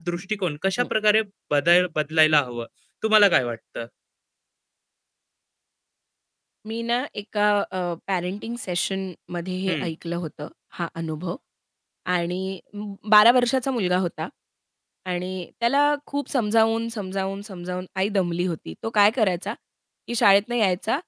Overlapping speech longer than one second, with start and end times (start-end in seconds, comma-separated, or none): none